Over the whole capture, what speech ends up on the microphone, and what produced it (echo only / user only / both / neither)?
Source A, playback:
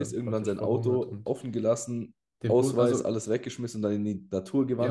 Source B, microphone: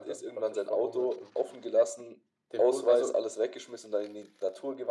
echo only